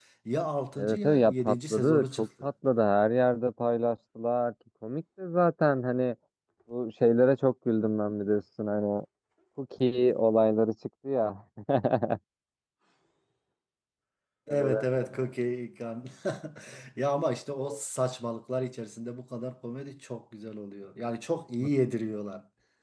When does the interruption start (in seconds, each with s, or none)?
0.8 s